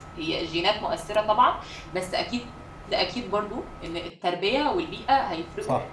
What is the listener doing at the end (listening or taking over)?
taking over